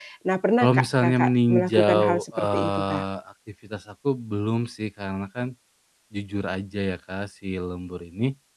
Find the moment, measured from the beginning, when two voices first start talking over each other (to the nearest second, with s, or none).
1 s